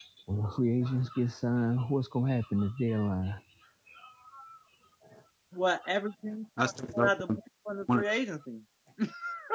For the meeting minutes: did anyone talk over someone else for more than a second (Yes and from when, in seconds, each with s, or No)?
No